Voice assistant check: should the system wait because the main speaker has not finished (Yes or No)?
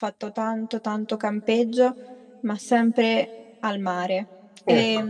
Yes